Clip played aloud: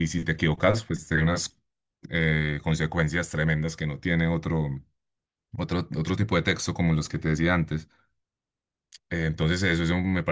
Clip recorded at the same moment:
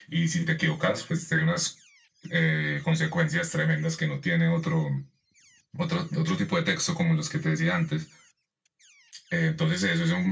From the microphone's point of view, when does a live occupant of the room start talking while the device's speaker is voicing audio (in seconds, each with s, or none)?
none